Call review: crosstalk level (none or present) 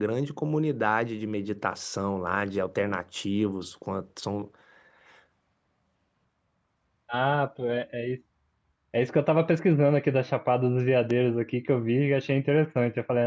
none